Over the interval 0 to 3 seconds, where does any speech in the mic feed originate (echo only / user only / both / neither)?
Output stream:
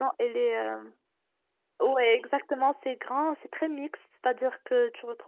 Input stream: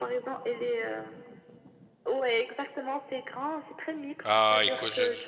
echo only